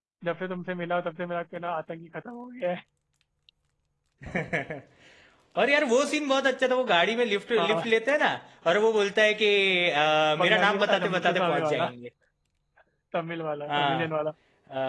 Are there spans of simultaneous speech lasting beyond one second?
Yes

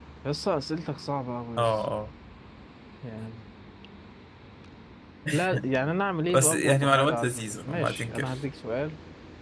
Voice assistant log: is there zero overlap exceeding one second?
No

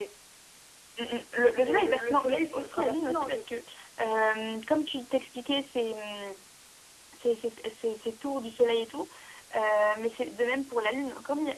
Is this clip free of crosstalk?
No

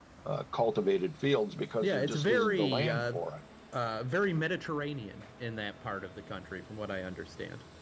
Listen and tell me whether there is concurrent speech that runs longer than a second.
Yes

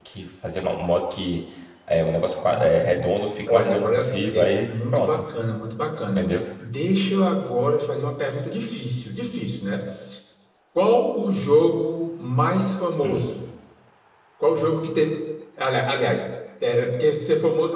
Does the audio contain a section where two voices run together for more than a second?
Yes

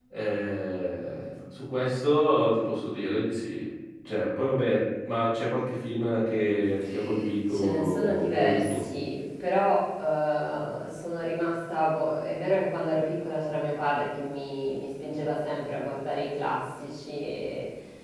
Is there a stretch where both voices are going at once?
Yes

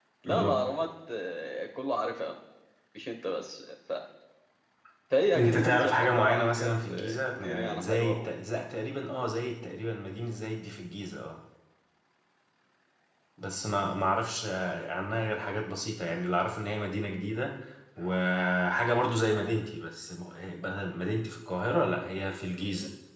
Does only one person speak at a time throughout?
No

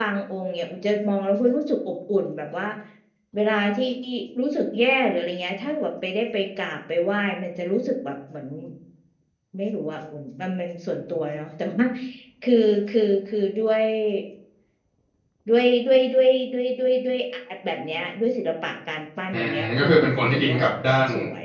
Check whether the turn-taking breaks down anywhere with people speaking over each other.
Yes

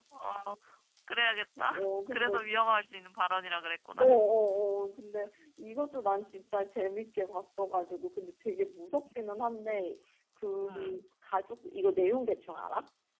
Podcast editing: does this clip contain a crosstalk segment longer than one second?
No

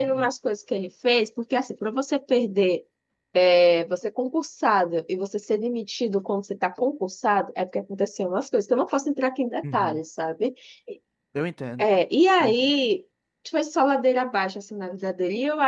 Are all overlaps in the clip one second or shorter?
Yes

